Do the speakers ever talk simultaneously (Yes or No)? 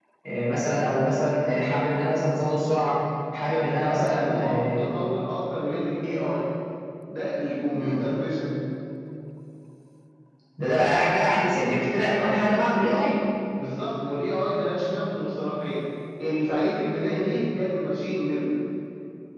Yes